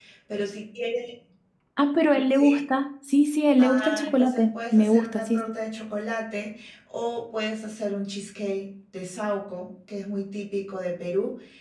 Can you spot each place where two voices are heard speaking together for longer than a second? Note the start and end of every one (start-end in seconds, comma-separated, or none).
3.6-5.5